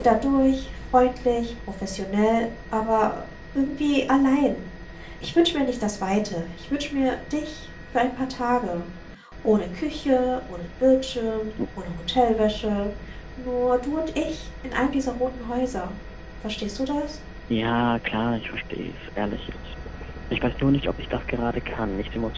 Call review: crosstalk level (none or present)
none